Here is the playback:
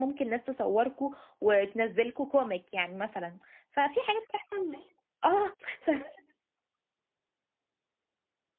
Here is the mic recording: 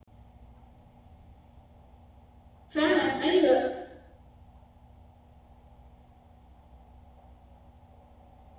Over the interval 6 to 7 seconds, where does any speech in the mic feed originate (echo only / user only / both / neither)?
neither